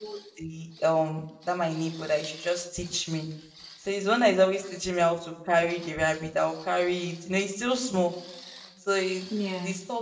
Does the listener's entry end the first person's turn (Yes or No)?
No